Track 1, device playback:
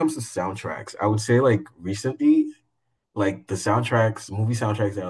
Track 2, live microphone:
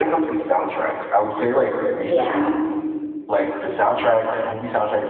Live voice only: yeah.

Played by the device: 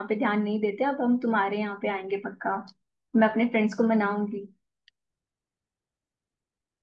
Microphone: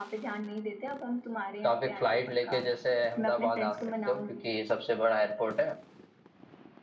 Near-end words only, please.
तो आप एक फ्लाइट लेके जैसे अहमदाबाद आ सकते हो क्योंकि ये सबसे बड़ा एयरपोर्ट है

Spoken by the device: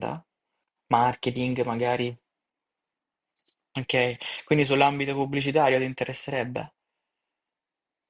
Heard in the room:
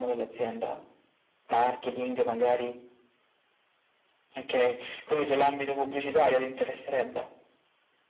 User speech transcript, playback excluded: none

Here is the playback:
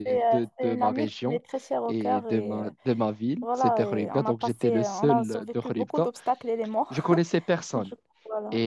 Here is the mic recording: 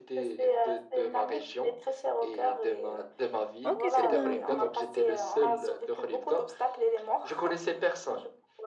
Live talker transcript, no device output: ok, très bien. Mhm.

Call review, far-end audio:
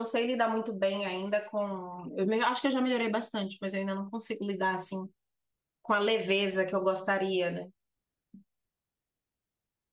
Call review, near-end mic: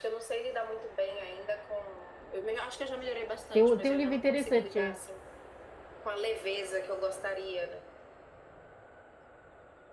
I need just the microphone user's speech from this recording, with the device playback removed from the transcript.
Tem um, tem um livro interessante,

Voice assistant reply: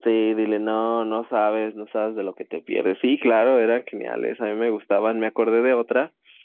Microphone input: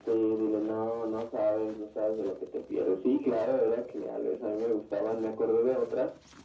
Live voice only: none

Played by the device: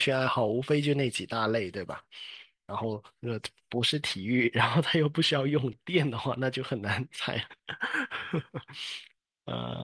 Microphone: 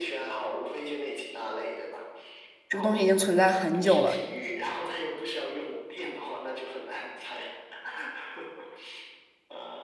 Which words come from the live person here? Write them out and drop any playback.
这个东西已经存在很久了，

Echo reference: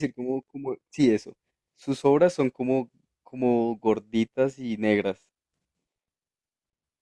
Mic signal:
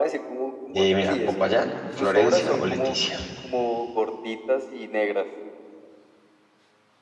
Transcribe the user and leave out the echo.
Eh, mira, Popayán, Florencia o Leticia.

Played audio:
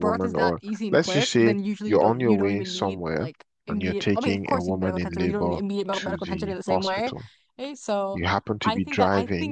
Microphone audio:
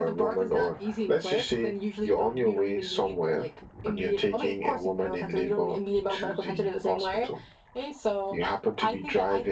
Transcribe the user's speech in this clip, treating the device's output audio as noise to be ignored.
none

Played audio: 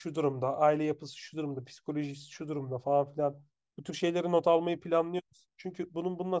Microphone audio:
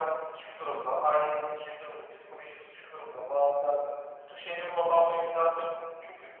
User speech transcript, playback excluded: none

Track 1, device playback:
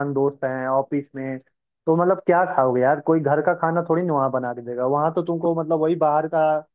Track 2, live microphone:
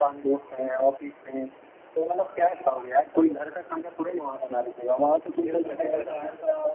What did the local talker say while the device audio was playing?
न्यूज़ में देखा था मैंने

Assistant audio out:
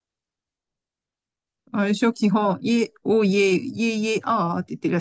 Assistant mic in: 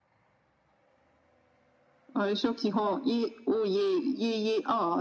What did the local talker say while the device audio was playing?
none

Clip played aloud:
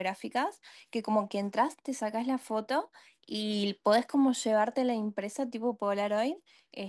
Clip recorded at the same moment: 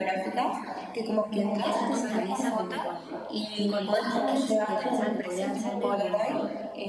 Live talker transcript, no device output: que haya toda una mesa como con, con stickers que pensaba que podrían ser medio como

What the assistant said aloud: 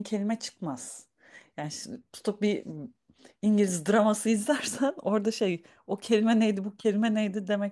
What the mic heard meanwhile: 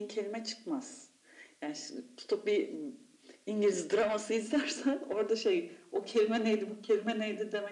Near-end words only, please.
none

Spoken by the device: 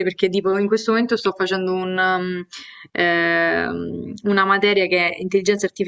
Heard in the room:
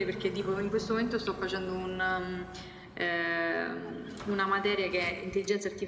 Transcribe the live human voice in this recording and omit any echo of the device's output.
none

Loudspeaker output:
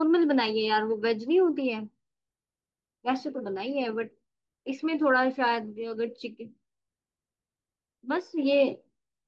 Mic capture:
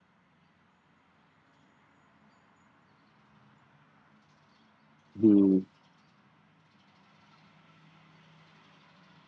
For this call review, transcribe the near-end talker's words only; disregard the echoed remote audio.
हम्म

